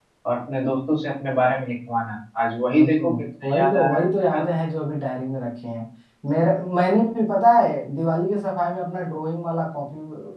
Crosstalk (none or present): present